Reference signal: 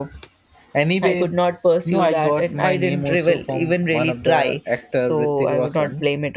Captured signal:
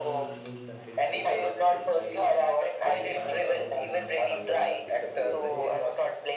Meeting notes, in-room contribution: present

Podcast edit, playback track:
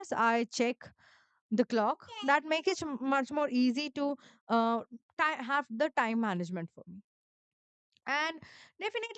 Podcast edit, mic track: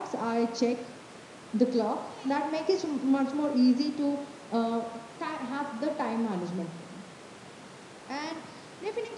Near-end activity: none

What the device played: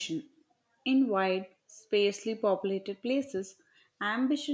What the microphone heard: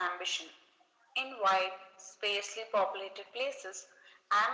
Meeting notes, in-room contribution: none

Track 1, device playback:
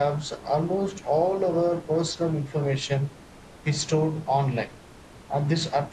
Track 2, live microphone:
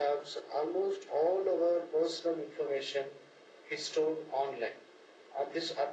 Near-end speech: none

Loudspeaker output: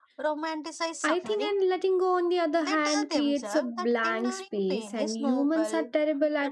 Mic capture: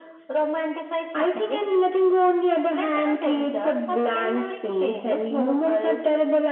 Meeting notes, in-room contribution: none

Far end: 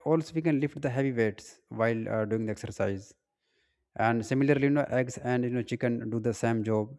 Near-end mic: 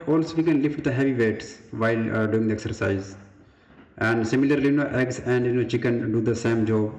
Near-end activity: none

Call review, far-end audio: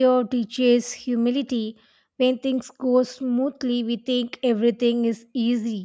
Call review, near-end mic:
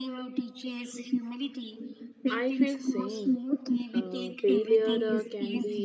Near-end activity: present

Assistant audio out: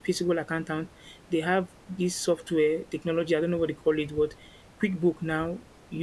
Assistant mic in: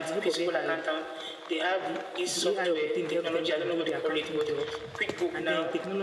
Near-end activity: present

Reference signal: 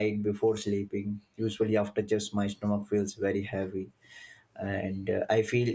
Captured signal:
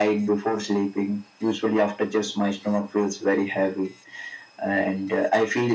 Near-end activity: none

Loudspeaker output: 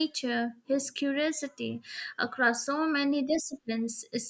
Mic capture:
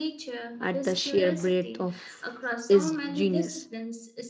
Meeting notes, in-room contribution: present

